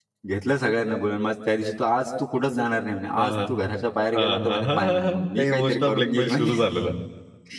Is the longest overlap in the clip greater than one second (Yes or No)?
Yes